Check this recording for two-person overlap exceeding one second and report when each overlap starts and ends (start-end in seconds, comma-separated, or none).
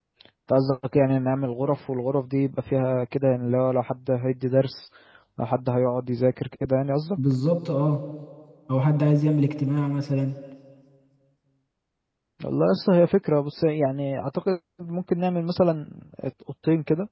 none